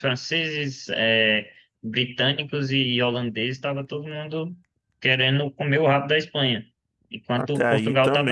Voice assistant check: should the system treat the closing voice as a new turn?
Yes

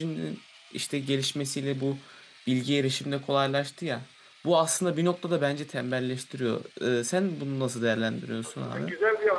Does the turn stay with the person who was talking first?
No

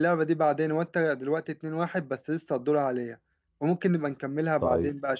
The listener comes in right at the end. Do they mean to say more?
Yes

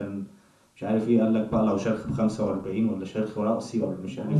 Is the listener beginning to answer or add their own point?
Yes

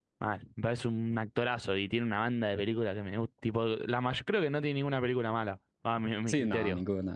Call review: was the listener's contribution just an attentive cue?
No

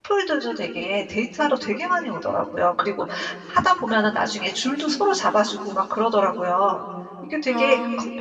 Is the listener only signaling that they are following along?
Yes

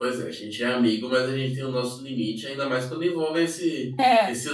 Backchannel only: Yes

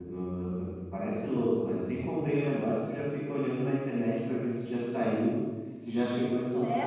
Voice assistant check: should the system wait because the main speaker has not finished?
No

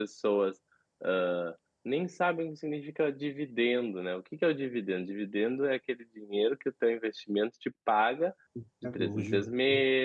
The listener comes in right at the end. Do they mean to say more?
No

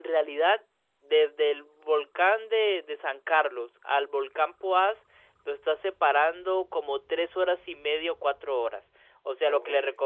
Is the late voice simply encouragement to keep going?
Yes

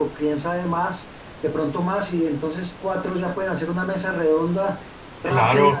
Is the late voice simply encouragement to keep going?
Yes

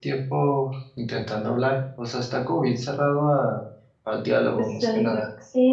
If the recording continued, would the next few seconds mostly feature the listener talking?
Yes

